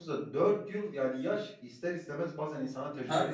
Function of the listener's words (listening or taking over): taking over